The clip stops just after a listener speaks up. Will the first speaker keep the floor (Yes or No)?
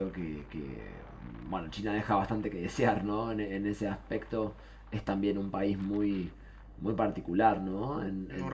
Yes